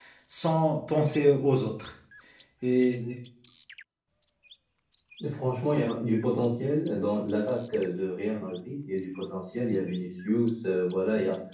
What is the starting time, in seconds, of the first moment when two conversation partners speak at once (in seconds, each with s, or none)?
none